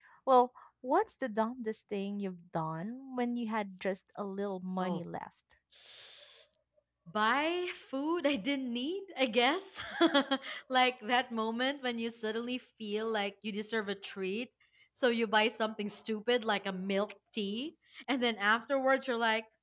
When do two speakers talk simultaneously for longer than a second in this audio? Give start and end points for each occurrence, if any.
none

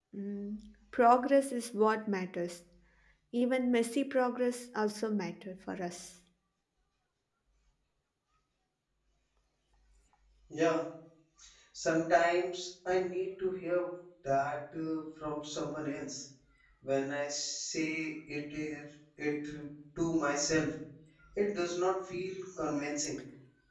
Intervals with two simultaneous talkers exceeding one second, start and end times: none

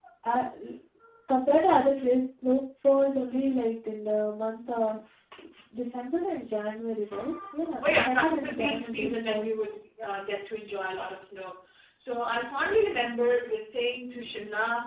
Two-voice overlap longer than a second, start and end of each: 7.8-9.5

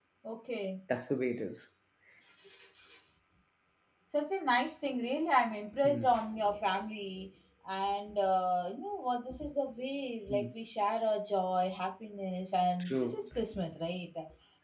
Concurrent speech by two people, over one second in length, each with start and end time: none

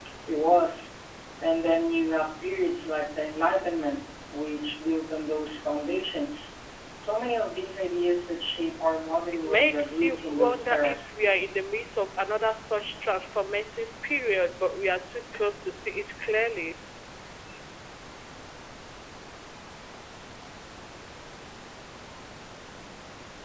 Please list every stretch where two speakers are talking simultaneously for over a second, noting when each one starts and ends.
9.4-11.1

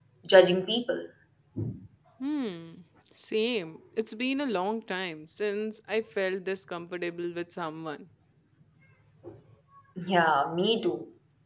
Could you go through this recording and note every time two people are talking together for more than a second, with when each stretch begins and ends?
none

